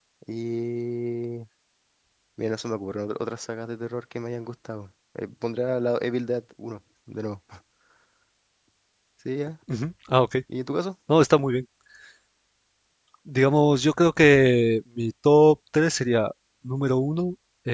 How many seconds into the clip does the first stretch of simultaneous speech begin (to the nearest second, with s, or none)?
none